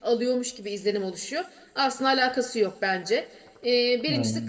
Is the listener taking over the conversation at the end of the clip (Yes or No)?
No